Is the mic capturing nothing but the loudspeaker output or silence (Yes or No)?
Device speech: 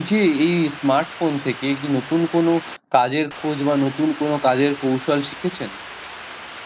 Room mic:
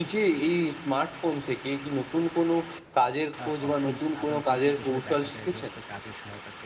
No